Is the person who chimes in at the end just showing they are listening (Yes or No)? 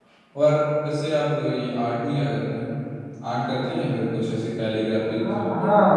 No